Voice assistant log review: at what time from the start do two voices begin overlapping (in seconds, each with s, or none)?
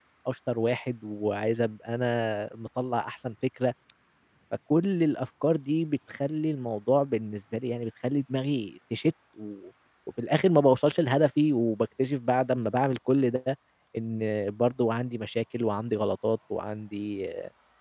none